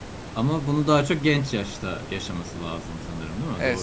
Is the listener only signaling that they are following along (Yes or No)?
No